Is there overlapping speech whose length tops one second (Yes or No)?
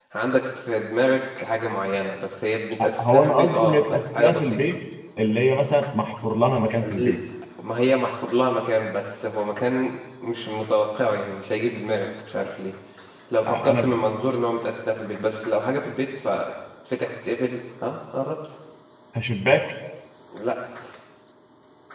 Yes